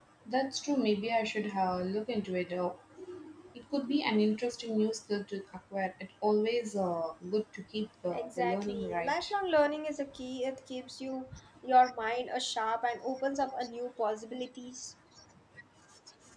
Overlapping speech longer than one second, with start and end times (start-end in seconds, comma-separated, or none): 8.1-9.3